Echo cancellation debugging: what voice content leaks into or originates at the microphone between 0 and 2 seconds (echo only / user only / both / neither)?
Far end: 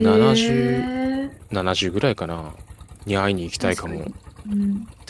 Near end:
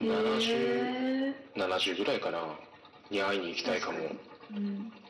echo only